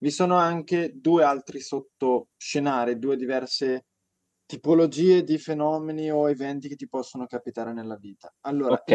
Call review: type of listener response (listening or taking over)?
listening